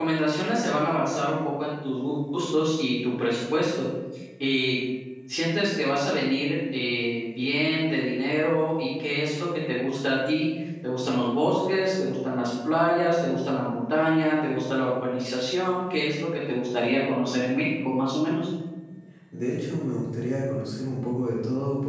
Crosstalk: none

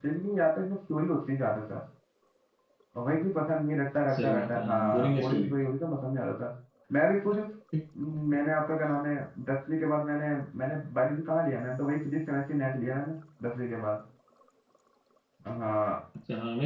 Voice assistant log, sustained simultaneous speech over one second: present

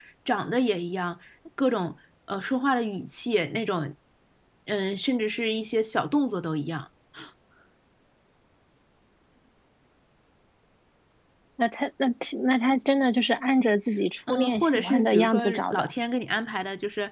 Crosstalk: present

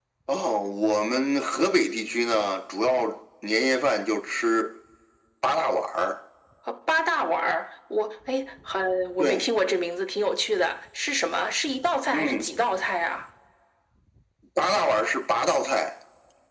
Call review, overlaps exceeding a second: none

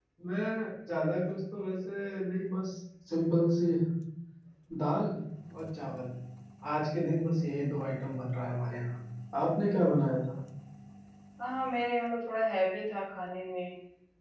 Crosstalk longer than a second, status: none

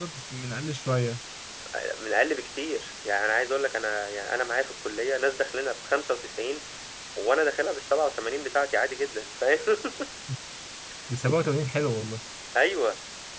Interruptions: none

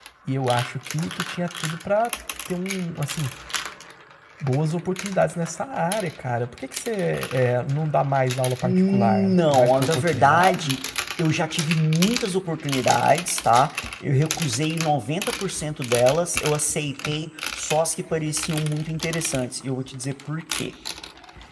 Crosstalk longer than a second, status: present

